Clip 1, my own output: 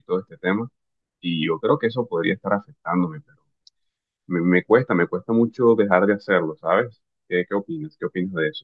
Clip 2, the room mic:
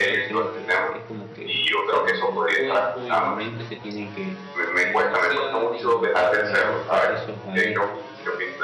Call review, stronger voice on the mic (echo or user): echo